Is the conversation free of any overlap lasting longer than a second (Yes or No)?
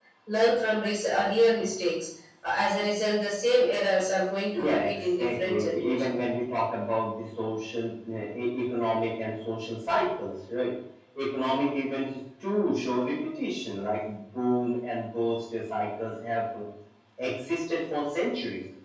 No